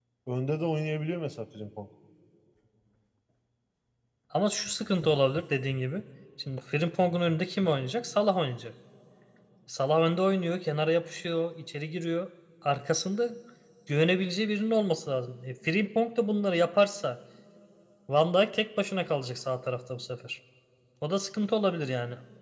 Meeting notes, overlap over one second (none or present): none